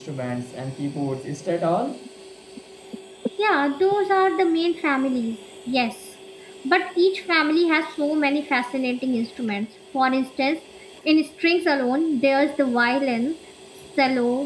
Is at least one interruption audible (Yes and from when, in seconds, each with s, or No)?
No